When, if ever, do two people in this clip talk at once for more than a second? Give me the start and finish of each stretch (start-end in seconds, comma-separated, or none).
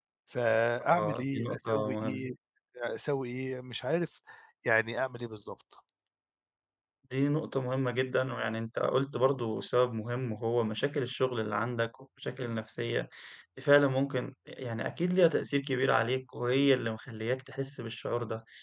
0.8-2.3